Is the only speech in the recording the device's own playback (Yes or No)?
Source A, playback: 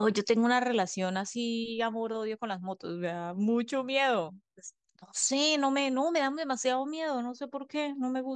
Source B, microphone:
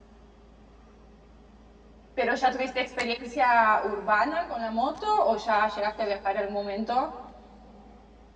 No